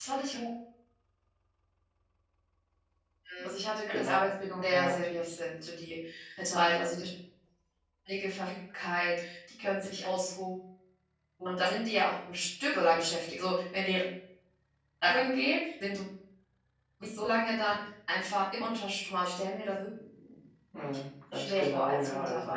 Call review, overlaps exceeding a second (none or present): present